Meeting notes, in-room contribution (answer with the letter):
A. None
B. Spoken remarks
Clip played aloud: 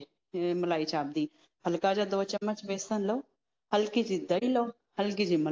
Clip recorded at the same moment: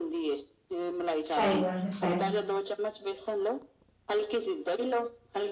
B